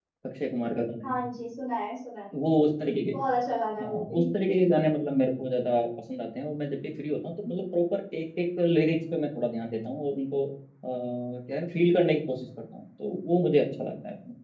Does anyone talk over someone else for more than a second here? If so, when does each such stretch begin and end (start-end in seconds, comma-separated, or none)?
none